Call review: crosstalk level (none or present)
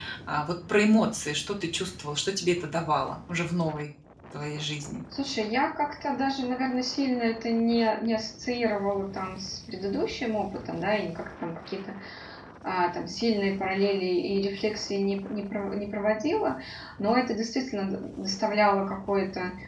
none